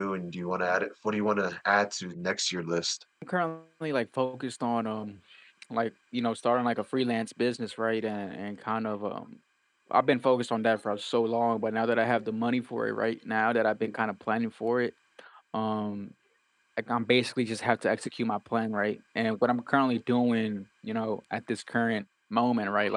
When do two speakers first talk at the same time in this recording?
none

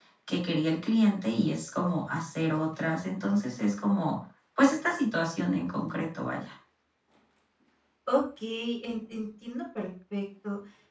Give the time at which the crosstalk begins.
none

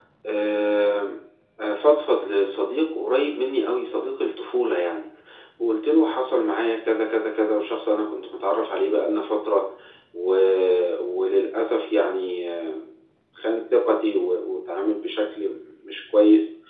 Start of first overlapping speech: none

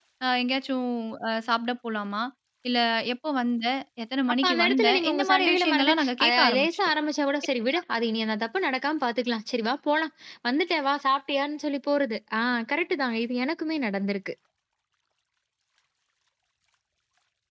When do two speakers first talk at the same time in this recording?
4.4 s

